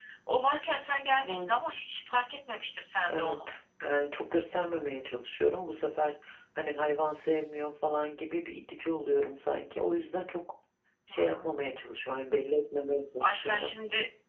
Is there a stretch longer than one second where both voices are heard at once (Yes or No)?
No